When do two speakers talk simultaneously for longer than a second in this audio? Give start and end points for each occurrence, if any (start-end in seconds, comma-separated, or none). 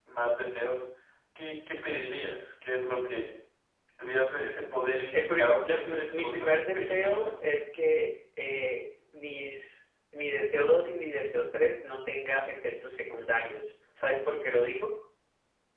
5.1-7.3